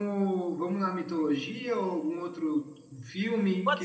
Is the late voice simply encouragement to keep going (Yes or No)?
No